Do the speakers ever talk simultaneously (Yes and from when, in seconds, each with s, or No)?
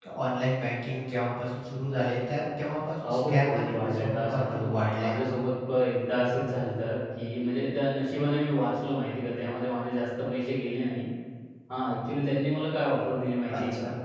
Yes, from 3.0 s